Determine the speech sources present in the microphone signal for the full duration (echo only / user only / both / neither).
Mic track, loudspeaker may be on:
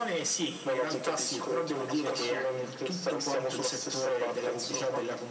echo only